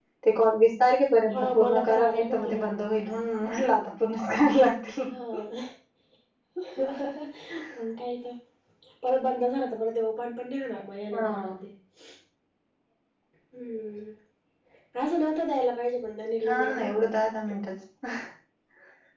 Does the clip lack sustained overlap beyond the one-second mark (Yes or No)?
No